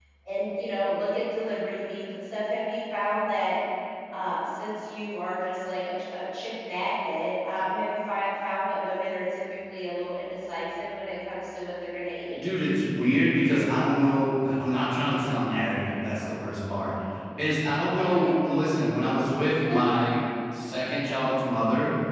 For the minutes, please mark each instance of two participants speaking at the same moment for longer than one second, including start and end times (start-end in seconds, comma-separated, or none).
none